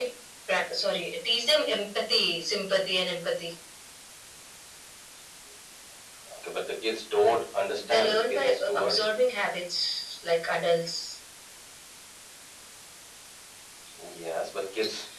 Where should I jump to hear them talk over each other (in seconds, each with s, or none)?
7.8 s